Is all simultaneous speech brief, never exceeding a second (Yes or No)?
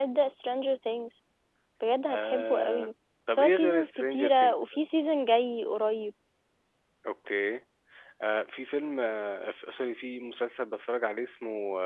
No